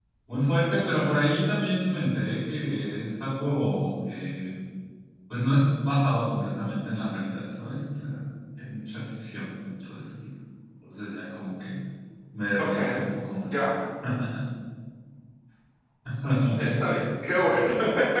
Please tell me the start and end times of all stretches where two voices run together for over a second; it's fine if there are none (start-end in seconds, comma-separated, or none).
none